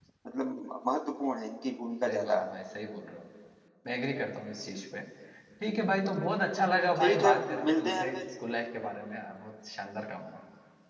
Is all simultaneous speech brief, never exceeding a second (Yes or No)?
No